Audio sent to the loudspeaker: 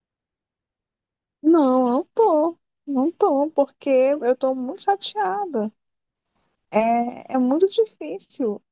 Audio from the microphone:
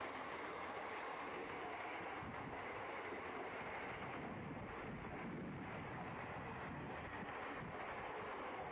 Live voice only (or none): none